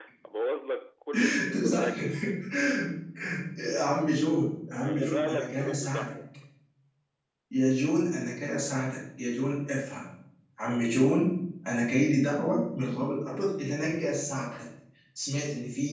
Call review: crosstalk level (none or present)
present